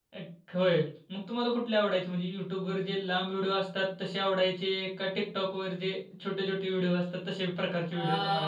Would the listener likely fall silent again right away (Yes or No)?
No